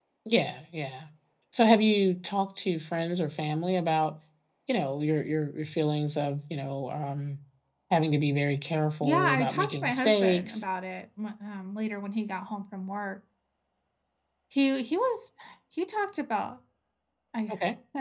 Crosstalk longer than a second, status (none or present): present